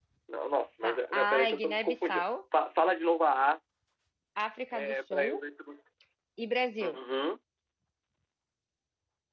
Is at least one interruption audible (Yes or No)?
Yes